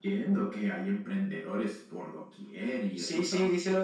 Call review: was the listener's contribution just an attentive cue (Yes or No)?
No